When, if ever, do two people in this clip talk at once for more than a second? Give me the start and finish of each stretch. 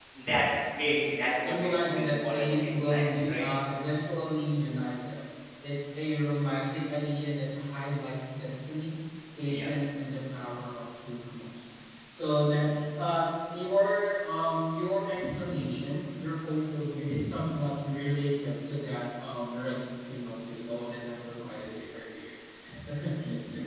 0.8-3.5

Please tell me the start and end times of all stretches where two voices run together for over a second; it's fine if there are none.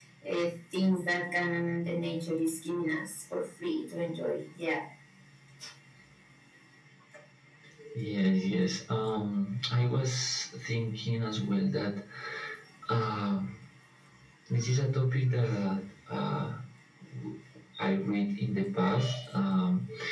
none

